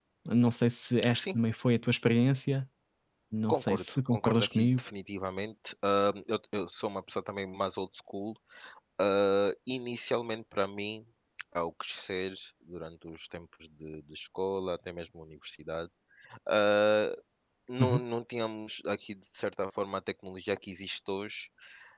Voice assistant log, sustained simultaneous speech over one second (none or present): present